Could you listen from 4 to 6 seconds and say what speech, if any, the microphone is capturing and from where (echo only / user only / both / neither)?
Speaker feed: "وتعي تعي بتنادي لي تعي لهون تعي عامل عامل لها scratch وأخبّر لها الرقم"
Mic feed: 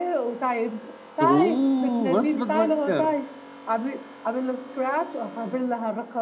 echo only